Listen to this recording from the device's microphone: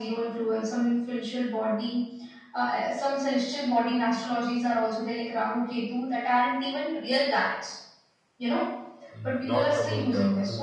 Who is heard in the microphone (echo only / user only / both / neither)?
both